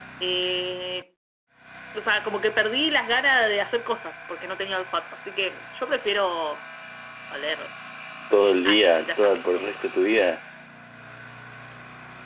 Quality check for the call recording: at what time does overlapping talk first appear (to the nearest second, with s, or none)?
9 s